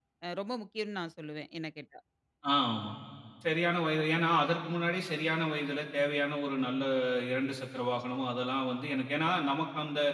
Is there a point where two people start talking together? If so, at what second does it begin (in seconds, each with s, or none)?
none